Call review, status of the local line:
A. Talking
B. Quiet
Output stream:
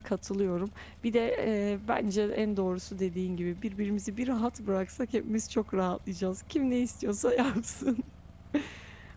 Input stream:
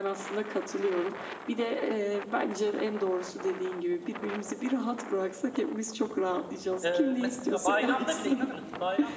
A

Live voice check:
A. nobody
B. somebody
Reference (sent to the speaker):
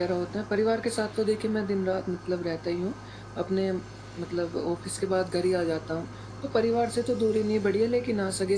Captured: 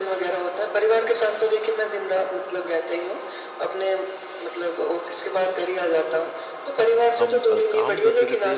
B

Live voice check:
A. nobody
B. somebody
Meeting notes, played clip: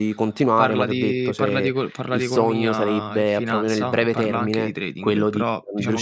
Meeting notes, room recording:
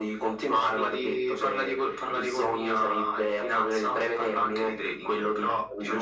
A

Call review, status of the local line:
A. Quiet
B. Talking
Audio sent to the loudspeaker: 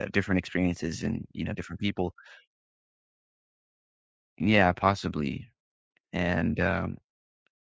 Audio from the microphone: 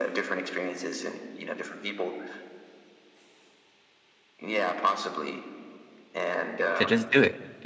B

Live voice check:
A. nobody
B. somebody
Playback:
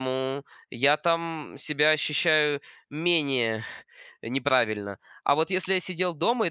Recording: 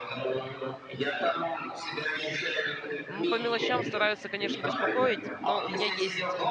B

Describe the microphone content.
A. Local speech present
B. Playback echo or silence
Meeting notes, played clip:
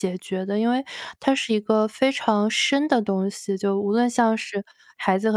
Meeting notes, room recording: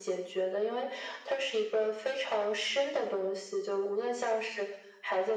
B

